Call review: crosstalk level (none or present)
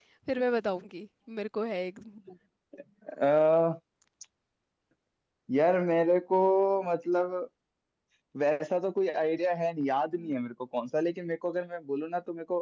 none